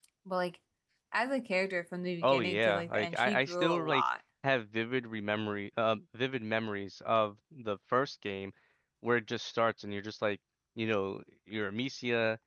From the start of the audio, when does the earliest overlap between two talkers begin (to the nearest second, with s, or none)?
2 s